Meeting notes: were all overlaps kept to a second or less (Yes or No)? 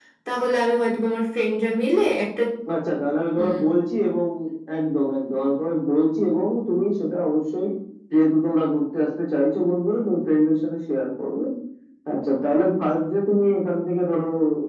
Yes